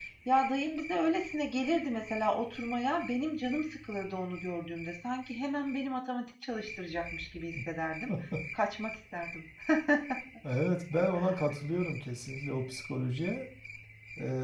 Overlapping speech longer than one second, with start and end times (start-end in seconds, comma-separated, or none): none